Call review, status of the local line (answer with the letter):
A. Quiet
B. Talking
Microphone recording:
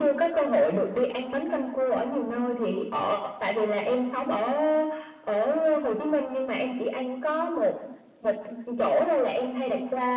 A